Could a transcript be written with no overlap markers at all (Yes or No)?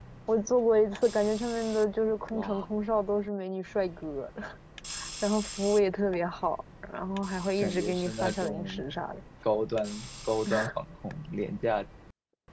No